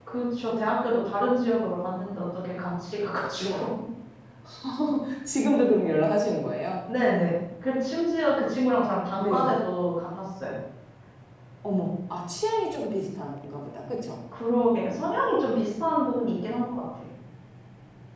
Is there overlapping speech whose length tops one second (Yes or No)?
No